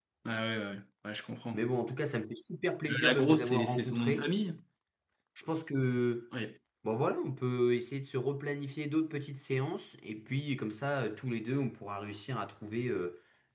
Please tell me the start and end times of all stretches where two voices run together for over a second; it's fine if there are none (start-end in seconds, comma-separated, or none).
2.9-4.3